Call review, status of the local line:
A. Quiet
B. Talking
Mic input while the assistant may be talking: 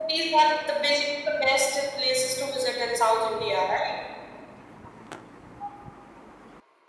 A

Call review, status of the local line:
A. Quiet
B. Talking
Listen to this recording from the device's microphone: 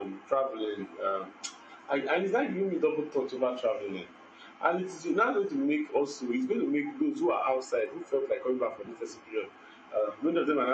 A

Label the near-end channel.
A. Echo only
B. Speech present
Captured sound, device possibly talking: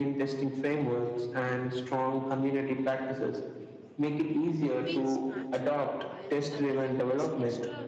B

